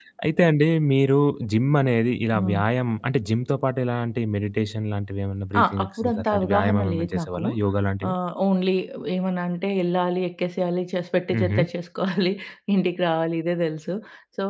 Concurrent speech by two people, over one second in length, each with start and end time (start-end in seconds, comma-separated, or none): 5.6-7.4